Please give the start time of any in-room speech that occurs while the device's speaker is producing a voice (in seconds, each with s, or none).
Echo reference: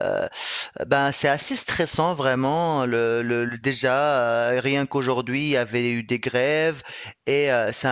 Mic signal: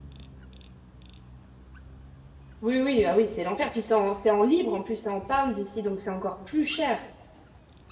2.6 s